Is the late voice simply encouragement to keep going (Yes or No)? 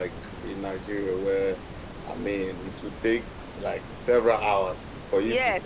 No